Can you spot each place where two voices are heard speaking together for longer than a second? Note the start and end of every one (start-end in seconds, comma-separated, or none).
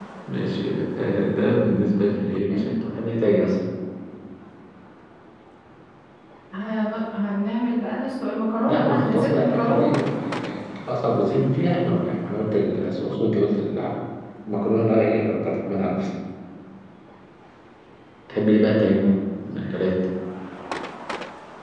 8.7-9.9